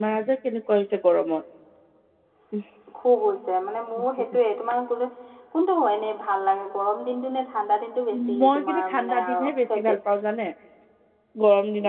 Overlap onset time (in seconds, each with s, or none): 8.4 s